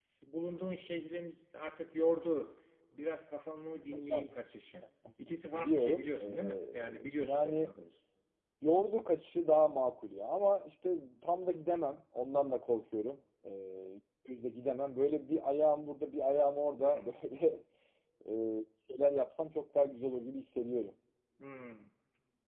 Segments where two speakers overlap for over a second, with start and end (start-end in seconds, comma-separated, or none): 5.5-7.7